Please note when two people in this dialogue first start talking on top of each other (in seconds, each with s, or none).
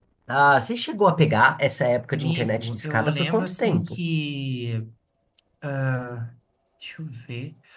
2.2 s